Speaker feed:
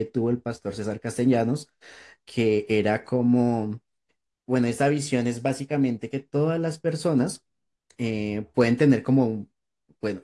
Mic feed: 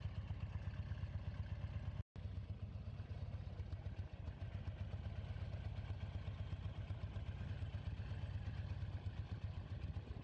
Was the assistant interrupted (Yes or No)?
No